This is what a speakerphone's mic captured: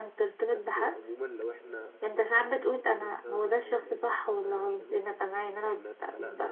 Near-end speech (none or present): present